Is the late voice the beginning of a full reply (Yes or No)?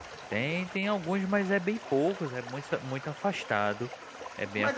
Yes